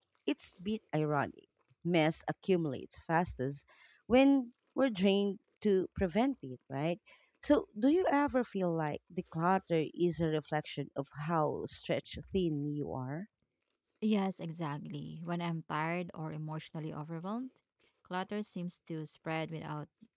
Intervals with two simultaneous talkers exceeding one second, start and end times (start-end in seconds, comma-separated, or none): none